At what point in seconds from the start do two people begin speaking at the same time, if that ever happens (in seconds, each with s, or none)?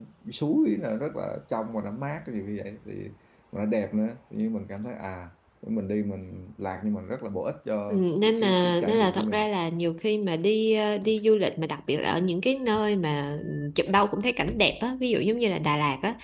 7.9 s